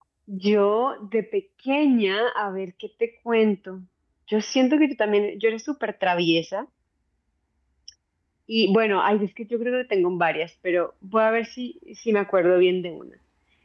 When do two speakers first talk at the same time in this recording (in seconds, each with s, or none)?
none